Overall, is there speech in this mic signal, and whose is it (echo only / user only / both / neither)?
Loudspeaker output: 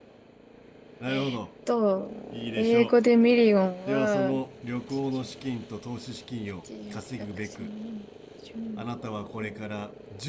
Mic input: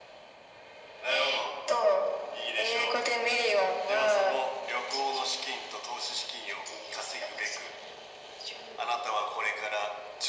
echo only